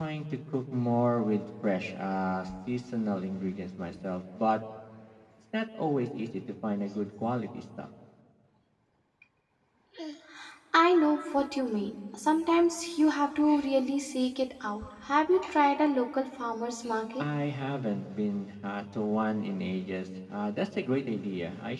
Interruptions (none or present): none